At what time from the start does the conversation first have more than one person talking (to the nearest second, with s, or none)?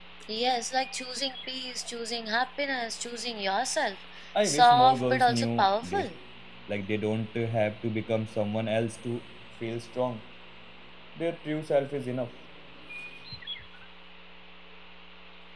4 s